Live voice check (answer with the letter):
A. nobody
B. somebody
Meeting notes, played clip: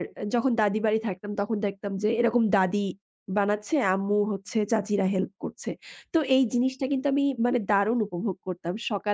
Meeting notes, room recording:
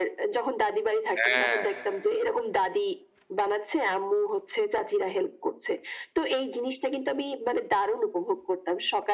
B